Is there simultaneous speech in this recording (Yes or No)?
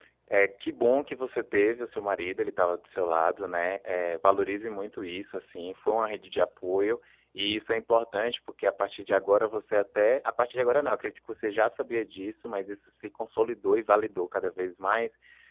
No